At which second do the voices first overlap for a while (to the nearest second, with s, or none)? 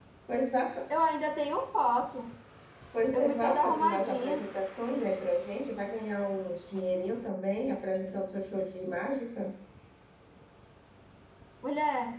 3 s